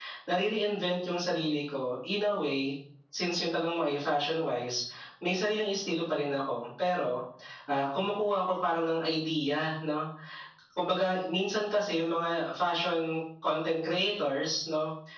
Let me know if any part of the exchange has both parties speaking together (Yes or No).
No